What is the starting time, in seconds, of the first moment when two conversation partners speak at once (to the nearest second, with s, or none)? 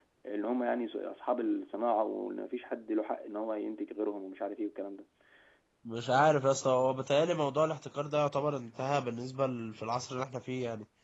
none